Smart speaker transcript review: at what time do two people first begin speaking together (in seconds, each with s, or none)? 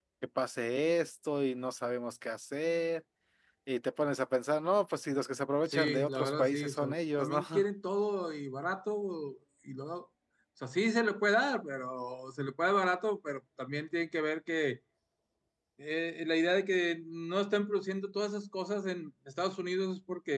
5.7 s